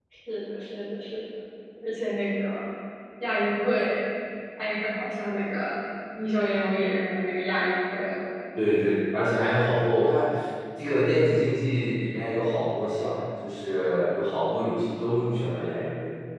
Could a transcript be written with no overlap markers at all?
Yes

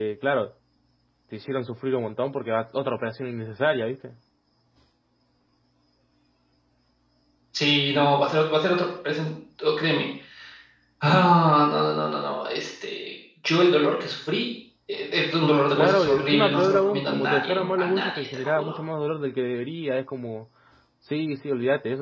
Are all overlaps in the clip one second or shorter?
No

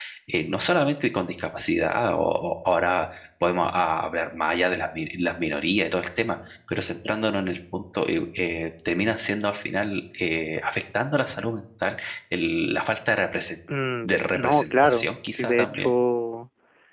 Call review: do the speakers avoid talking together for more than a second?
No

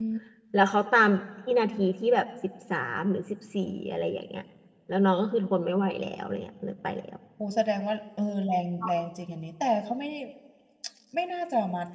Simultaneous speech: No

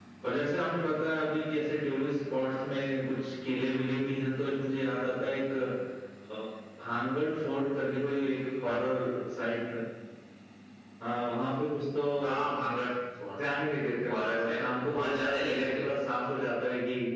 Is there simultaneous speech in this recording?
Yes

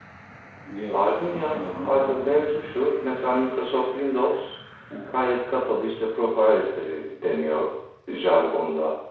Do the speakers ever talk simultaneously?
Yes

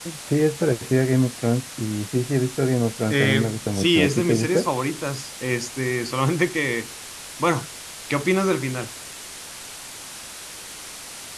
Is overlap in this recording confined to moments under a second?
No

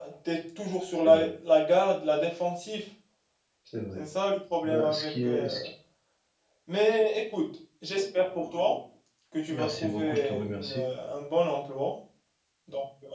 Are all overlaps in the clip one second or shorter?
No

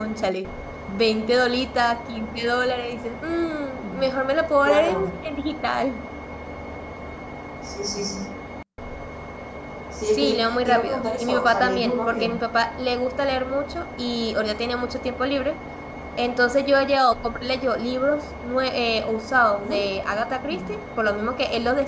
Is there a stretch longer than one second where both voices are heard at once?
Yes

